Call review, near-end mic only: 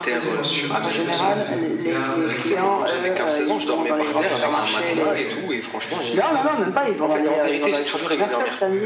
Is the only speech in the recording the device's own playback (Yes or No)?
No